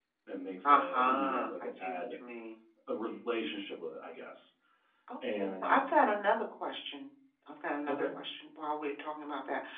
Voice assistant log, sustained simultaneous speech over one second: present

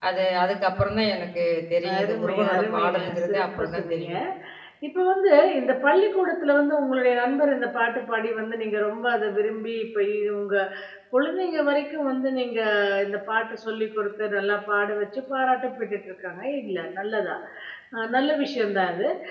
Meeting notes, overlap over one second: present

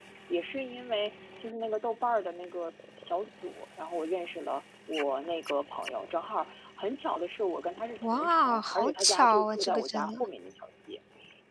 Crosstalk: present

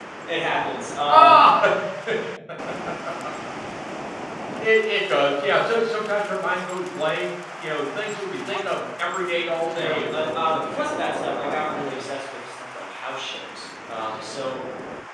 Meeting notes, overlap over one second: present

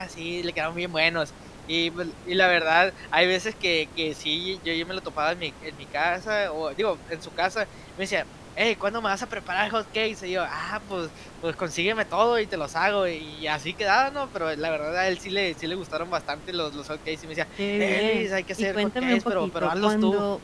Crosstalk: present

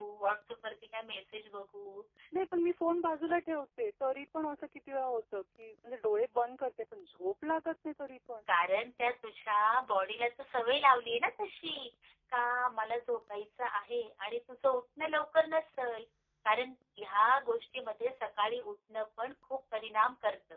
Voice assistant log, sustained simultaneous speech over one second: none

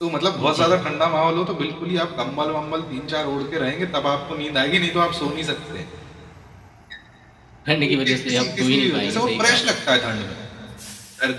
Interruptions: present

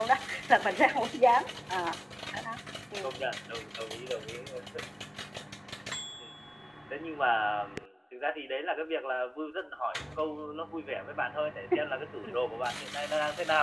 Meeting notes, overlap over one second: none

